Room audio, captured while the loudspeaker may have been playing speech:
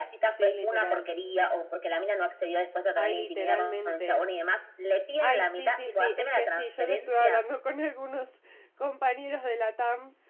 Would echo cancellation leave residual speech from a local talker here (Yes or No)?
Yes